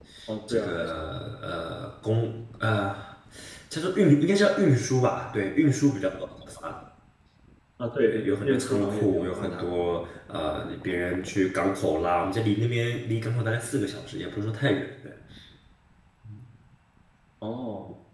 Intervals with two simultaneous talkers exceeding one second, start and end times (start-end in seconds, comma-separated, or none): 8.0-9.7